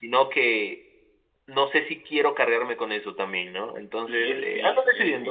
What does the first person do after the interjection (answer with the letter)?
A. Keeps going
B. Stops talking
B